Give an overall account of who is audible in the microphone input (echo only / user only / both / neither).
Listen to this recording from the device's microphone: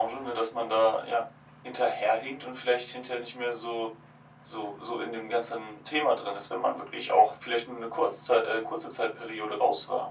echo only